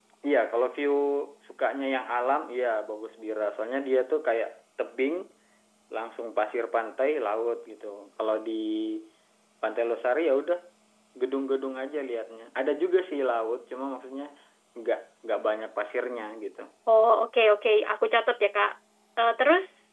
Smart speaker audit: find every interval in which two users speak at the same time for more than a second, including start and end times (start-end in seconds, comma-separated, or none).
none